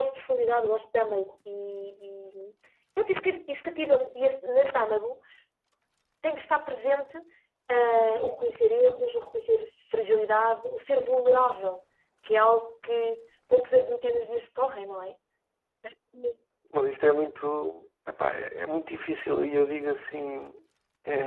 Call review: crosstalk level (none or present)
none